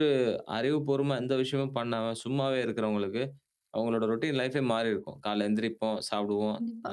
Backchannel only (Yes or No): Yes